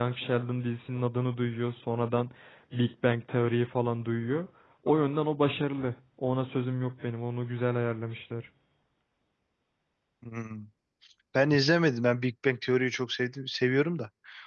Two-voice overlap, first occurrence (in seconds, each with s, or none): none